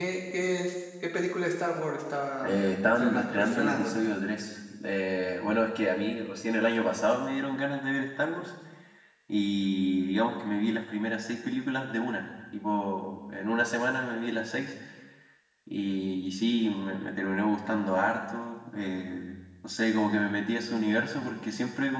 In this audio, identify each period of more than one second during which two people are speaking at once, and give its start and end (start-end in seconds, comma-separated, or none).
2.4-4.1